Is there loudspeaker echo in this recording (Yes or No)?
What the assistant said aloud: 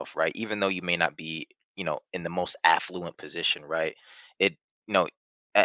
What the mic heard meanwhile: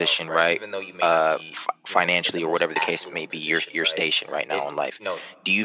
Yes